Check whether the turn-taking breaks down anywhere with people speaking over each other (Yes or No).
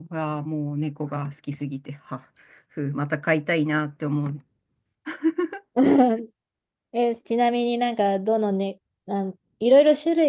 No